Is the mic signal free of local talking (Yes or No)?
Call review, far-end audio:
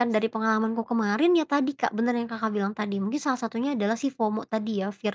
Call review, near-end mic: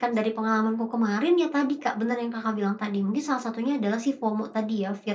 Yes